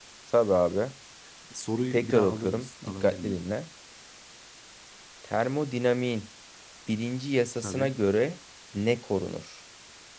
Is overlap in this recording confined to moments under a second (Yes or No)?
No